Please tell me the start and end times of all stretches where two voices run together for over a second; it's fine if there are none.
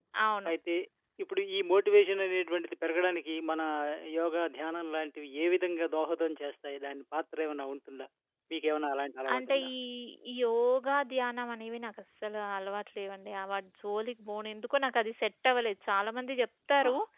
none

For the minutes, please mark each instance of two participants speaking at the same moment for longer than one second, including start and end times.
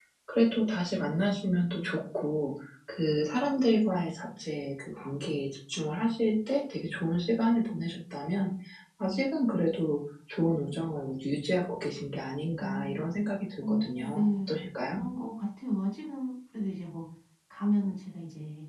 13.6-15.0

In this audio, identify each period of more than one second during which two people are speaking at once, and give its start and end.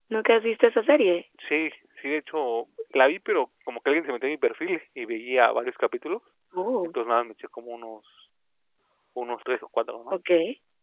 none

